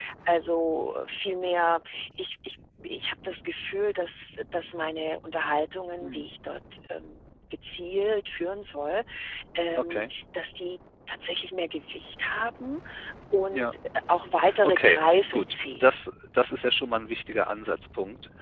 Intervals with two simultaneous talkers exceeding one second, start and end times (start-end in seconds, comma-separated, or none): 14.6-15.9